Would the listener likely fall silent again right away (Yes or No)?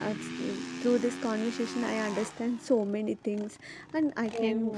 Yes